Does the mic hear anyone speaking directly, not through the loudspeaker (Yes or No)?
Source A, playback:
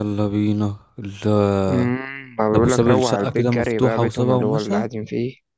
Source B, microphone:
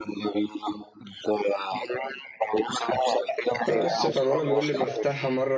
Yes